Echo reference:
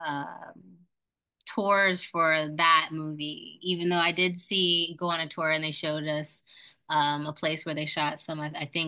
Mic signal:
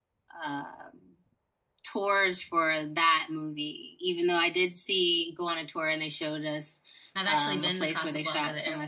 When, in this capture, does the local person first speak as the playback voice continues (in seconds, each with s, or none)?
7.1 s